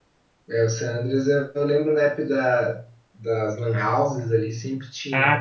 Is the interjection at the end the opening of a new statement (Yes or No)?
Yes